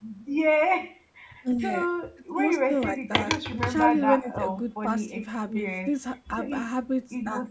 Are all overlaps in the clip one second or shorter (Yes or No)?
No